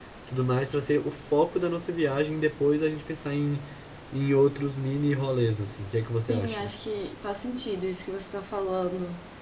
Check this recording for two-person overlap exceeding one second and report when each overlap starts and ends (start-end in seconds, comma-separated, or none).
none